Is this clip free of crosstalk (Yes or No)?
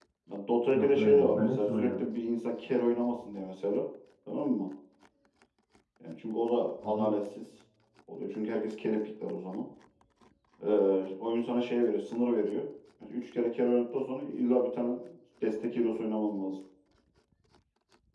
No